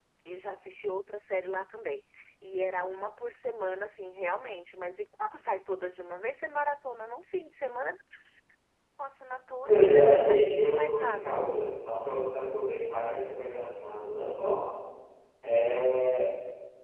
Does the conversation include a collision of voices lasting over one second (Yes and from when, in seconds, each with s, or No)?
Yes, from 9.7 s